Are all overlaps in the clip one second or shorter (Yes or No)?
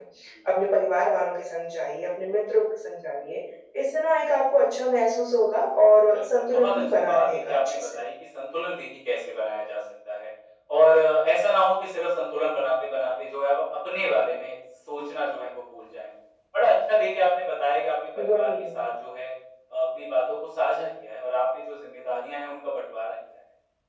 No